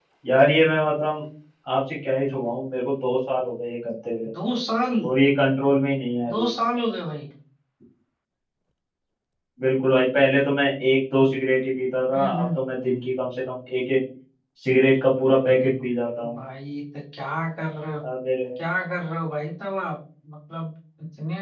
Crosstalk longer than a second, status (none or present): none